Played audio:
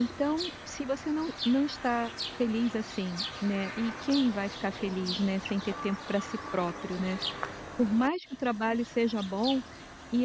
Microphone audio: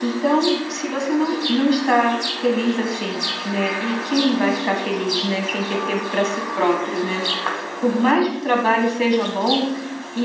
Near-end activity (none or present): none